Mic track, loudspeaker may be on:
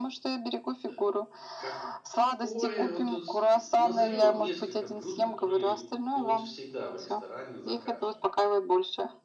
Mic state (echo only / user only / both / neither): both